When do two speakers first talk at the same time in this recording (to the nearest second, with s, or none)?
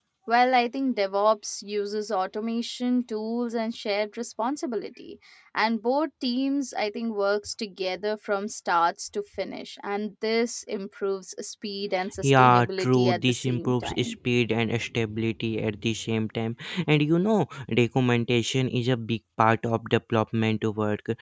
12 s